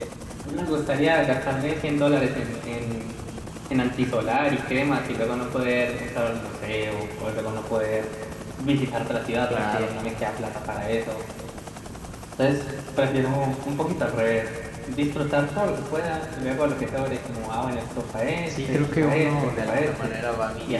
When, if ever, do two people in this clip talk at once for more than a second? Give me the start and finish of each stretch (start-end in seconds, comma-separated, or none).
18.5-20.1